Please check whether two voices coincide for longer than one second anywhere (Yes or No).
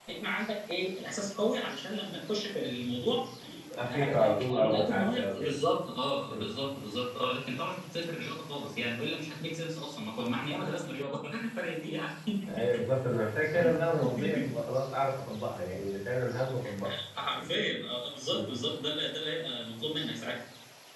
Yes